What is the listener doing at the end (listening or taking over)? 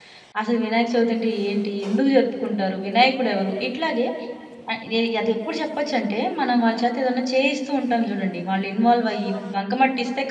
listening